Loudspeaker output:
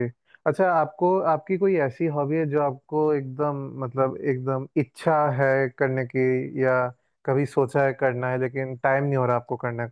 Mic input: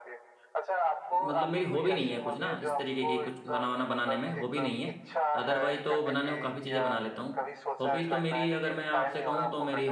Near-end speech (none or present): present